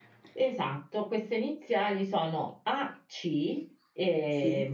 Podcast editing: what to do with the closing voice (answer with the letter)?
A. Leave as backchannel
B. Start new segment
A